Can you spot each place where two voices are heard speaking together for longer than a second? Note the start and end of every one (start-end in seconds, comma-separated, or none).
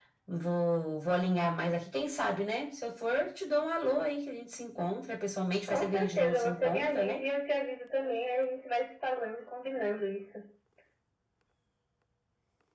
5.7-7.2